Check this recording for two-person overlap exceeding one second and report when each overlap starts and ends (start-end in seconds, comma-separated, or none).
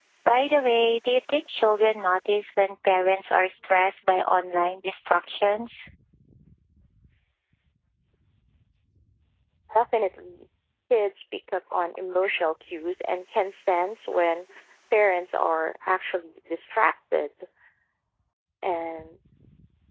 none